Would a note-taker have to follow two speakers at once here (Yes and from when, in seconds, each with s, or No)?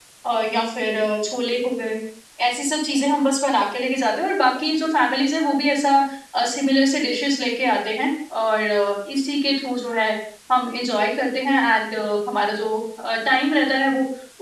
No